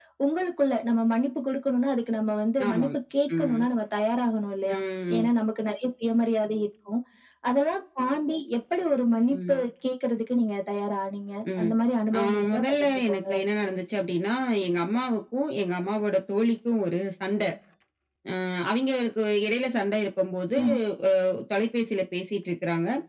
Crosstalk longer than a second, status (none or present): present